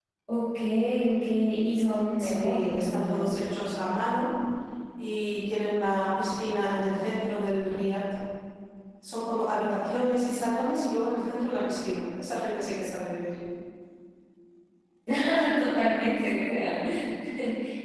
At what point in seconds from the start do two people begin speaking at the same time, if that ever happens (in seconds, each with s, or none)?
2.2 s